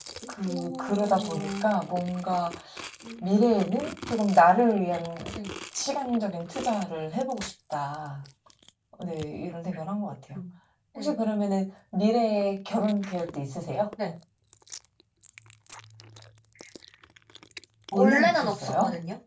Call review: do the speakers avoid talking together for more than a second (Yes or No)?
No